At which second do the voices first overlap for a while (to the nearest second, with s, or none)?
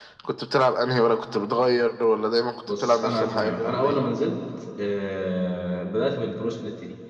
3 s